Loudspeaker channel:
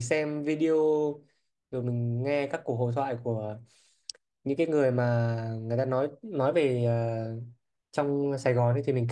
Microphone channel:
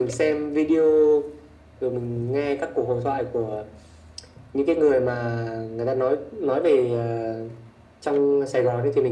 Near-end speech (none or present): none